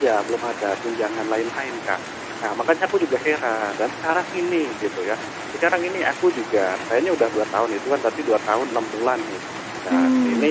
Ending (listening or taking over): listening